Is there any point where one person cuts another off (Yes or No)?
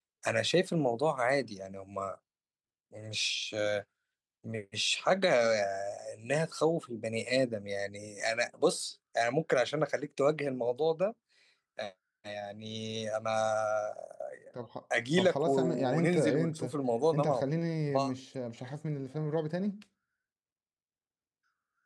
Yes